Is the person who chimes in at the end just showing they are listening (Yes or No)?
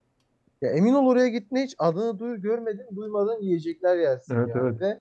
No